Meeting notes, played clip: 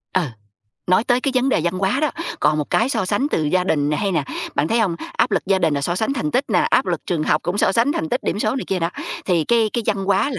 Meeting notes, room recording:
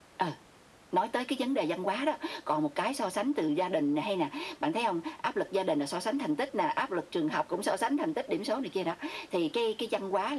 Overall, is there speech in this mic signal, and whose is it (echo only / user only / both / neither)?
echo only